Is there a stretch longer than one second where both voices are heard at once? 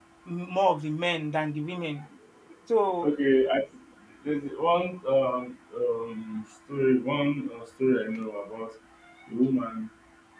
No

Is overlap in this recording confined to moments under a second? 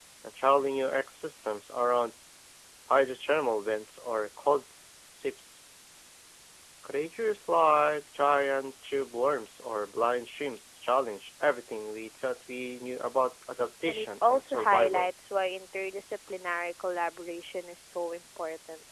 No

